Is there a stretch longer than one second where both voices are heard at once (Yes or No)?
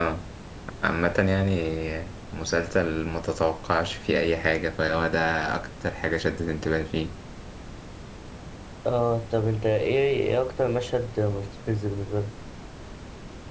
No